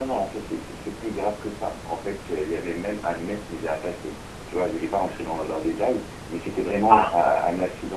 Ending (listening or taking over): listening